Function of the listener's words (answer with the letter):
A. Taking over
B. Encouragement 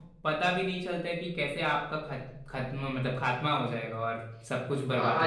A